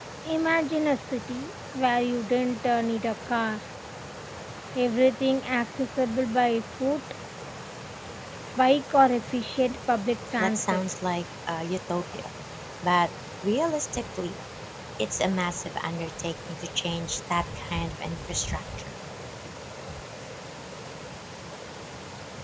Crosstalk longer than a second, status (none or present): none